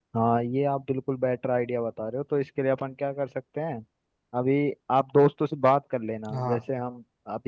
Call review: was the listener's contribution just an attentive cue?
Yes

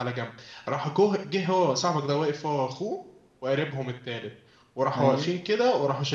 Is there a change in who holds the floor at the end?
No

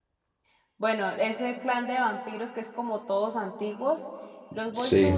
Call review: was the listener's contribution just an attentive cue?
Yes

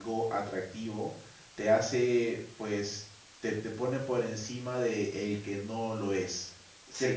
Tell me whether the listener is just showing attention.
No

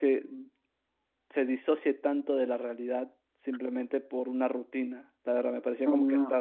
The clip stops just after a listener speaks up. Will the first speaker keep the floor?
No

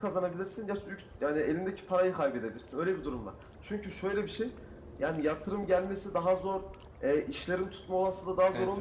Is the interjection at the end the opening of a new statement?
No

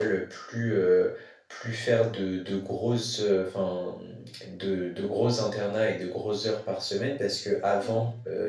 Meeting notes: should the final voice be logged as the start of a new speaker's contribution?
No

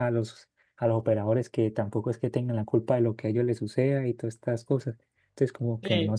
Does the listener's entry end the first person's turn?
Yes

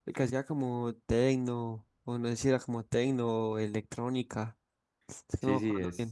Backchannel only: No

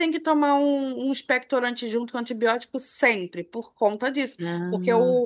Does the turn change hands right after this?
No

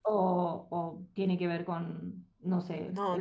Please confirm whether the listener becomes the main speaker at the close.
Yes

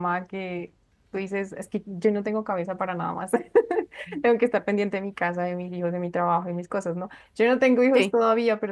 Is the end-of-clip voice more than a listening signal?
No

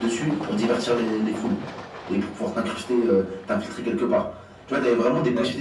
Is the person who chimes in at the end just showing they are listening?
Yes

